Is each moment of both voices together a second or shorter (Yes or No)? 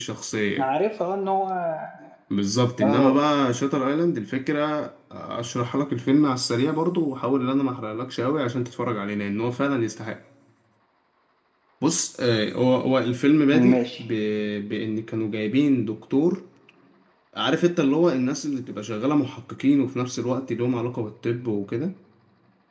Yes